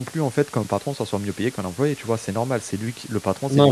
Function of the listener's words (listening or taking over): taking over